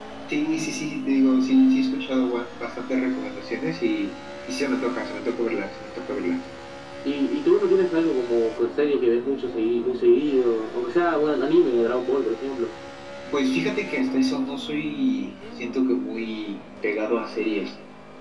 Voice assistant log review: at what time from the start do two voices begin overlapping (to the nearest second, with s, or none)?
none